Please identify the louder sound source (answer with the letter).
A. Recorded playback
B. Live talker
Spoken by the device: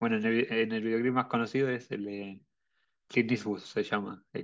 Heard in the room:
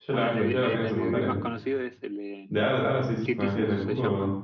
B